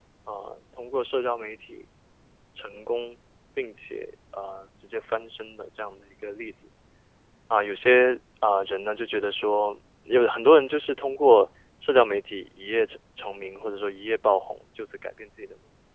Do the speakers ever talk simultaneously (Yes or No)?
No